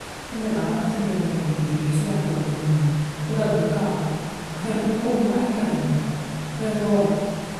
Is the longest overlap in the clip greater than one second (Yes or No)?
Yes